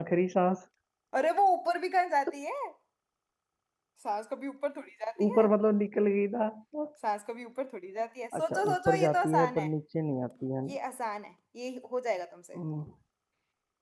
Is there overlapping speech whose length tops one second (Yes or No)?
Yes